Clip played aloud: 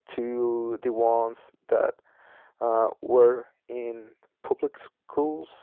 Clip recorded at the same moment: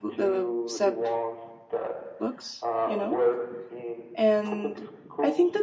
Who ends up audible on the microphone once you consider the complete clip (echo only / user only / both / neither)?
both